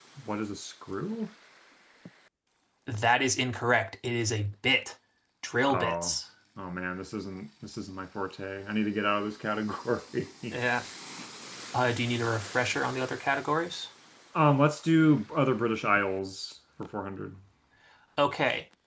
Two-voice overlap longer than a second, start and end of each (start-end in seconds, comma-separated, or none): none